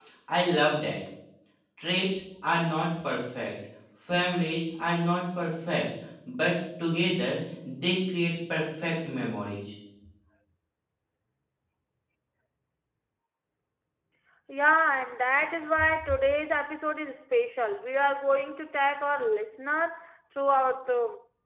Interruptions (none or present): none